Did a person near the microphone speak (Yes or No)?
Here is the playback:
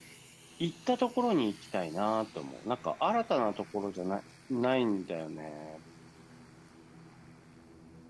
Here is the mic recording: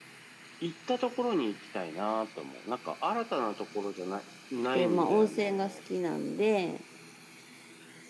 Yes